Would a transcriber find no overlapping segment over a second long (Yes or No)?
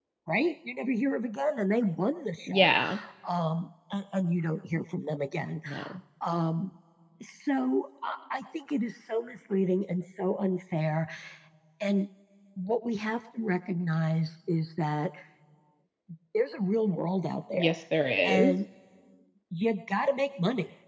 Yes